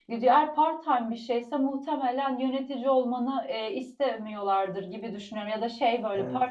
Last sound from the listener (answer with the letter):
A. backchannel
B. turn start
A